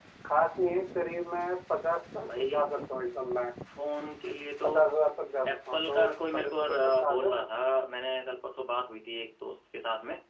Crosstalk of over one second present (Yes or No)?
Yes